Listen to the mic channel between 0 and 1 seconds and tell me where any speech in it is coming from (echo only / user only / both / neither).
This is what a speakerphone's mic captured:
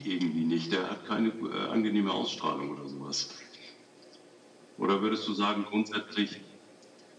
echo only